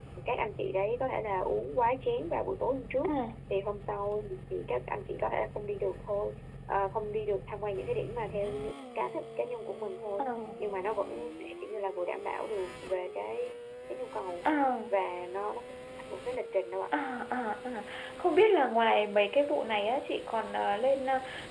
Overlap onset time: none

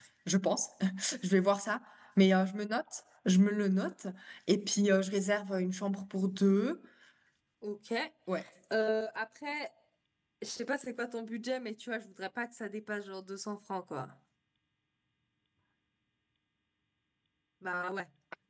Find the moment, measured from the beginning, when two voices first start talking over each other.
none

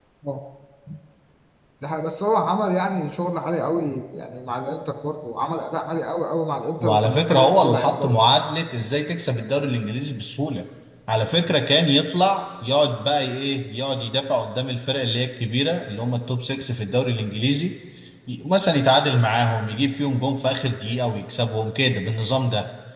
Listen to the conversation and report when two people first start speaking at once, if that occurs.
6.8 s

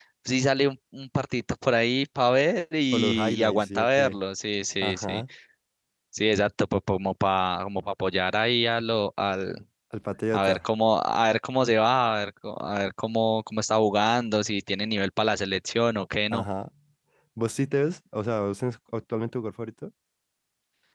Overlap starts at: 2.9 s

